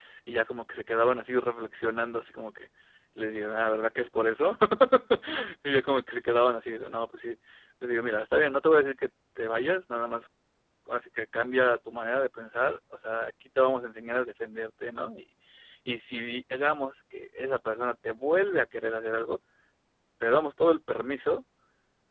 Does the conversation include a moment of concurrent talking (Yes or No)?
No